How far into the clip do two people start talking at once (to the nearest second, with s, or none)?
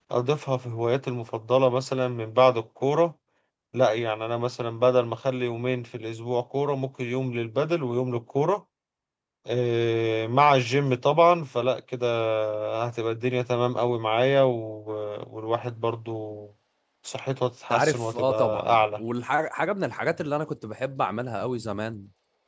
18 s